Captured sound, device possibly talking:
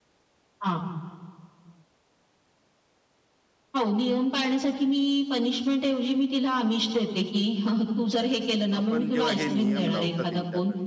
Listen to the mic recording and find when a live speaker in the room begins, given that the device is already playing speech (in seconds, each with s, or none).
8.8 s